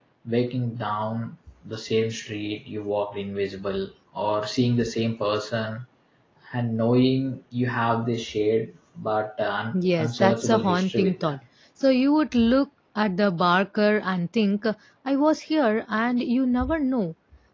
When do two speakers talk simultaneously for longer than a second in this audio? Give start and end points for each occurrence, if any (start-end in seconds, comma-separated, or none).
10.0-11.4